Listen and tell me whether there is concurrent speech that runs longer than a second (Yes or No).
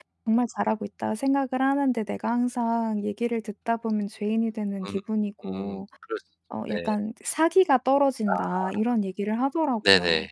No